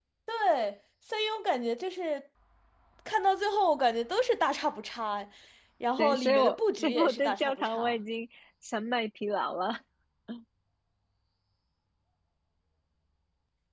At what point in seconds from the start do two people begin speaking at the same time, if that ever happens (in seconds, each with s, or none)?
6.0 s